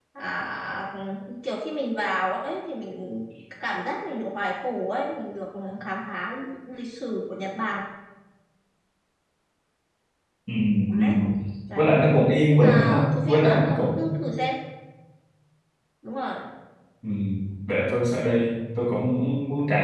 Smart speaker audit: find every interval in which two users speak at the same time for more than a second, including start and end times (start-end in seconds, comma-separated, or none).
12.5-14.1